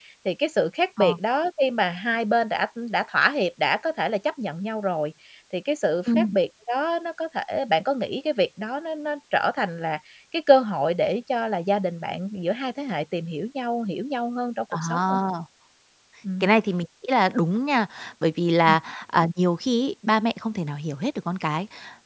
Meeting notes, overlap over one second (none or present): none